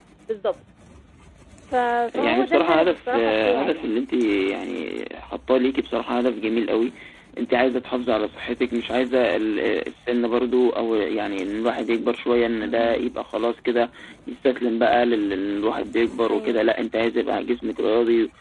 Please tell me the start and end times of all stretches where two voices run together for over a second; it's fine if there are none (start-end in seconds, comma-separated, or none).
2.1-4.0